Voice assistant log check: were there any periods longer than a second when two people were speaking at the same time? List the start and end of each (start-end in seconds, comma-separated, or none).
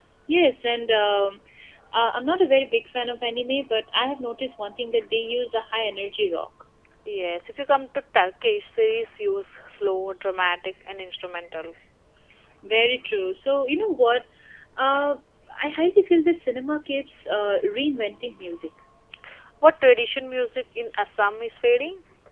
none